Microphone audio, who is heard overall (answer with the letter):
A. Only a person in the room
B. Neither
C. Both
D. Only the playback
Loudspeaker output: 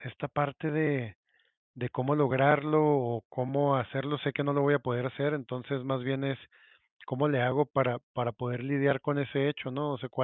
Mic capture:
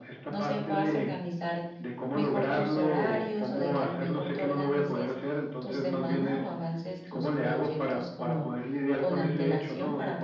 C